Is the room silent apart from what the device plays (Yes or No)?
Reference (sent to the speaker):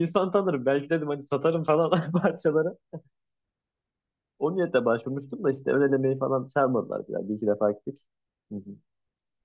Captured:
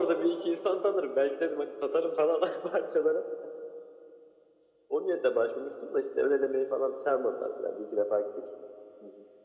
Yes